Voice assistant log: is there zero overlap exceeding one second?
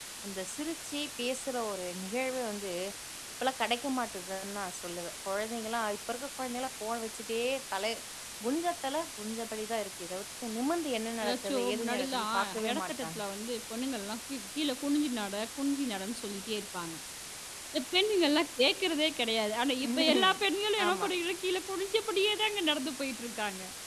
No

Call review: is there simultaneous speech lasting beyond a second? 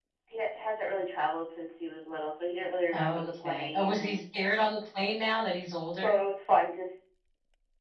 Yes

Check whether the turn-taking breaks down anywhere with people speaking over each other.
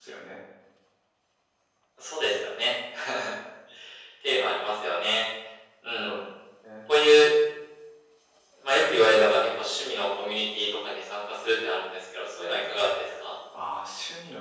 No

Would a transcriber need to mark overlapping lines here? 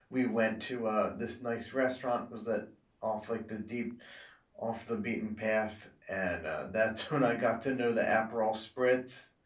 No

